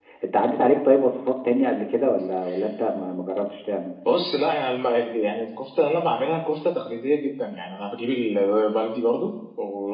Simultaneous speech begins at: none

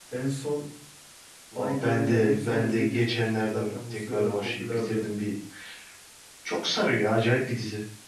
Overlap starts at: 2 s

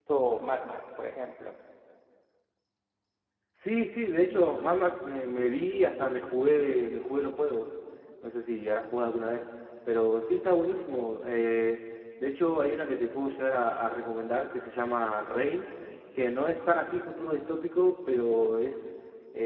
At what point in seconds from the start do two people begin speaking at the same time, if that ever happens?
none

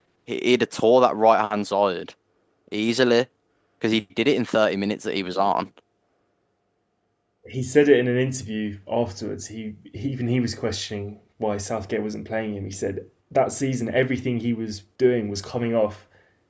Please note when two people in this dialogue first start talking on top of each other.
none

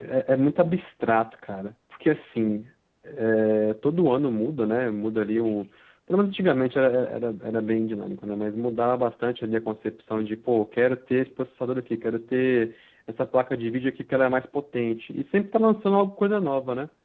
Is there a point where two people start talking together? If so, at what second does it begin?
none

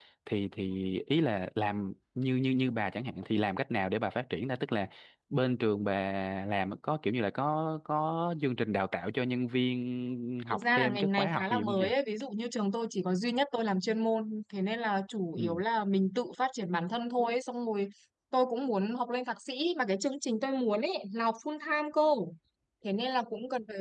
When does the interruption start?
11 s

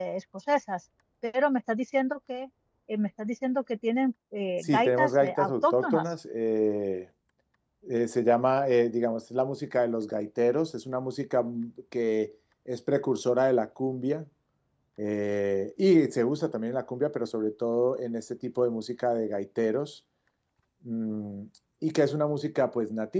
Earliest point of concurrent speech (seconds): 5 s

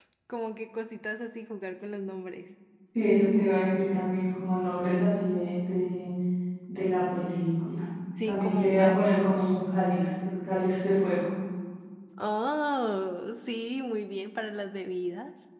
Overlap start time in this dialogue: 8 s

